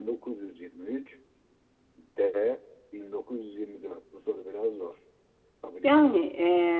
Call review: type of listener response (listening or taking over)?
taking over